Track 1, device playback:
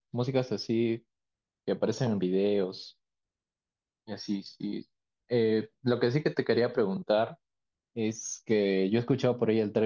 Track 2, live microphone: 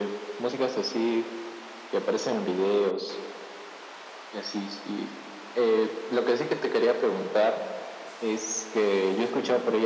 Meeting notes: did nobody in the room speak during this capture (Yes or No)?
Yes